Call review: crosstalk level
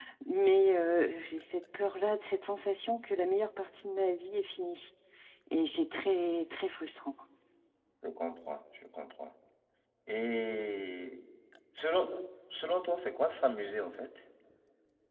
none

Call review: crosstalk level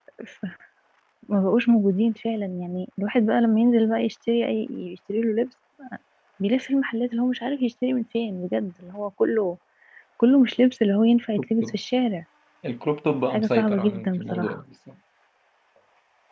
present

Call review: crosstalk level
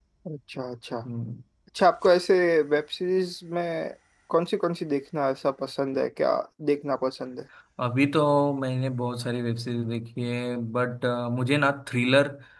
none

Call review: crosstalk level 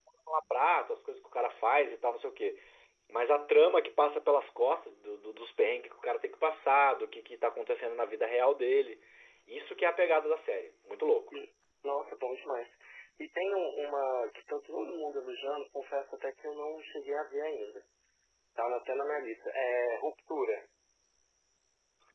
none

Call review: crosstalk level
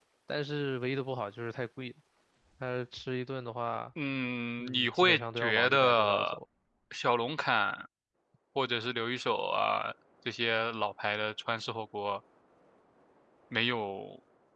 present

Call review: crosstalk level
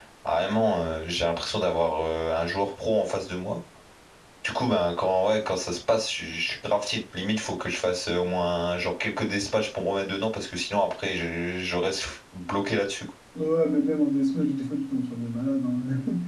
none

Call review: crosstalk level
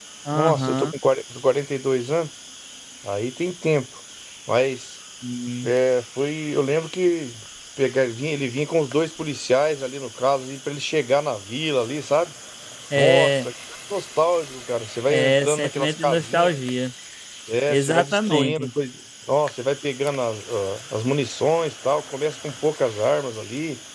present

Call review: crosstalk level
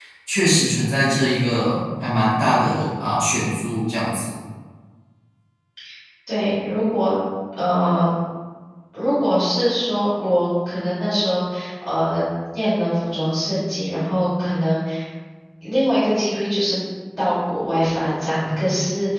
none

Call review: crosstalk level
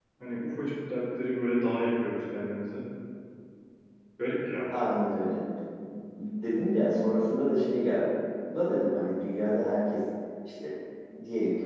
none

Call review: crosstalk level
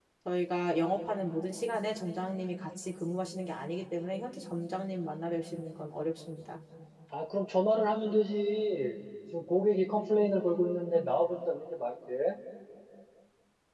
none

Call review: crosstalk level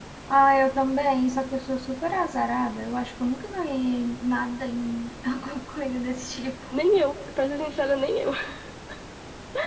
none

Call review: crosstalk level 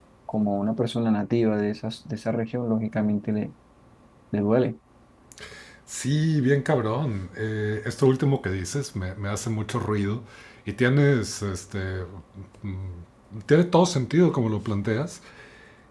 none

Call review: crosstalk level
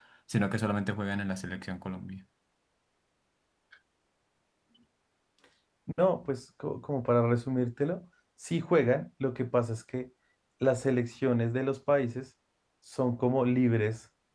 none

